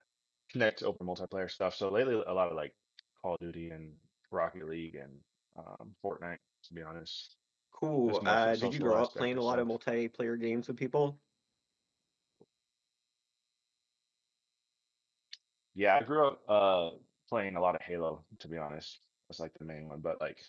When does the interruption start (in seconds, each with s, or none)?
8.1 s